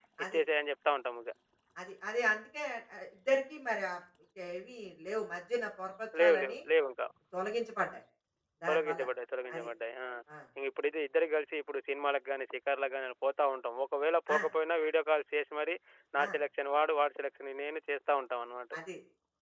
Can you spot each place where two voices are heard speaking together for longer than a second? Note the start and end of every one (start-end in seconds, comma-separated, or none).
none